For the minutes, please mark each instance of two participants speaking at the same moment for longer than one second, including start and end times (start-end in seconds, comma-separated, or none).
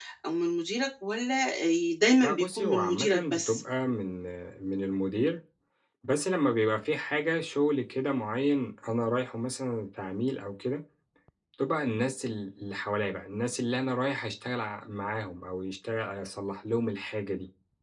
2.2-3.6